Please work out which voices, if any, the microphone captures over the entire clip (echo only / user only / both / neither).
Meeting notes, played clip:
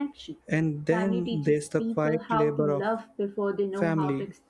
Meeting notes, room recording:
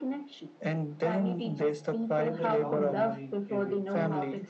both